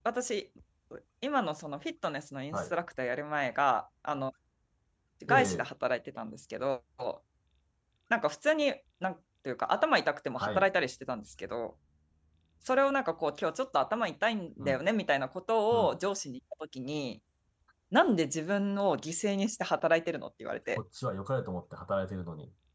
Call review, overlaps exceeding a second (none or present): none